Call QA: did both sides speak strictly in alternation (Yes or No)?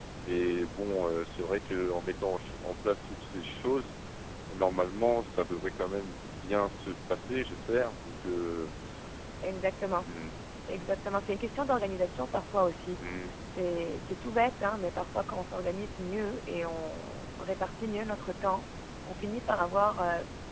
Yes